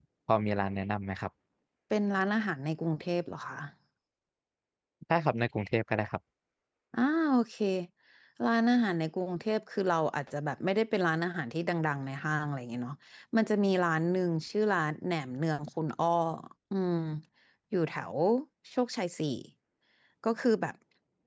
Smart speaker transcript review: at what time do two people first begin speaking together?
none

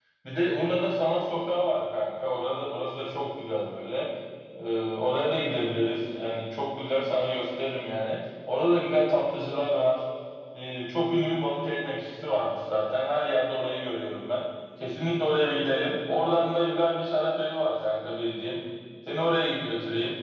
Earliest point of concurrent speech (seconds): none

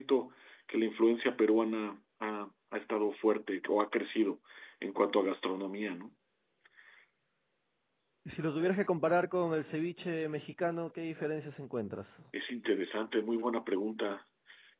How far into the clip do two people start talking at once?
none

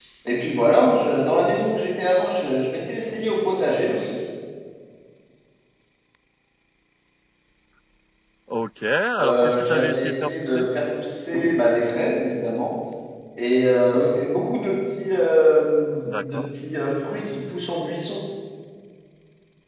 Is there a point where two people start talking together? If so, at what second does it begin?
9.2 s

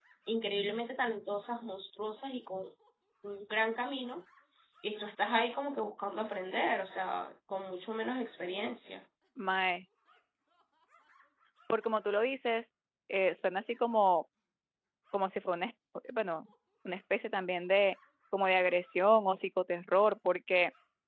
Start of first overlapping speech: none

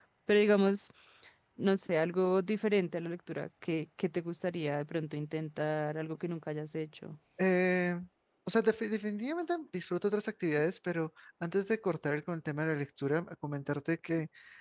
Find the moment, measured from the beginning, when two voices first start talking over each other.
none

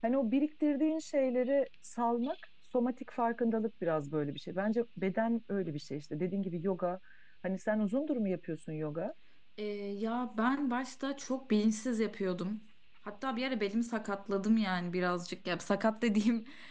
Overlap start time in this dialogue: none

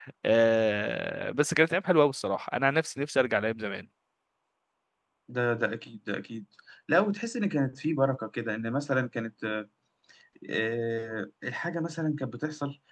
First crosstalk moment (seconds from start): none

